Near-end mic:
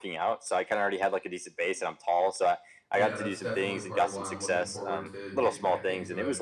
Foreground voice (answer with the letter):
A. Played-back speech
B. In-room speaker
A